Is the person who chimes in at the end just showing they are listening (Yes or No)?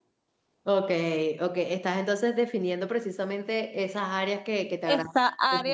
No